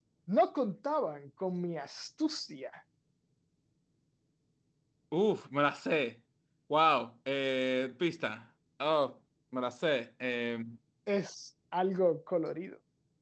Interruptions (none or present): none